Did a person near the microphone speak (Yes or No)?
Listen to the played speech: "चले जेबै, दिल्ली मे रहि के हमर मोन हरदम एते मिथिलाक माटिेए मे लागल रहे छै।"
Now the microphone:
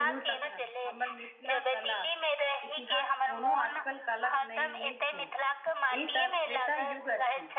Yes